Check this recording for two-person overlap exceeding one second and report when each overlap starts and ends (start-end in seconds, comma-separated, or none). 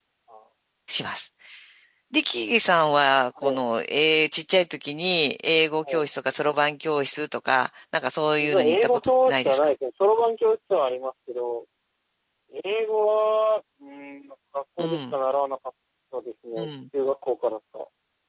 8.4-9.7